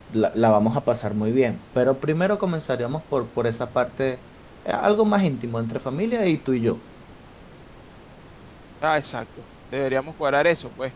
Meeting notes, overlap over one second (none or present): none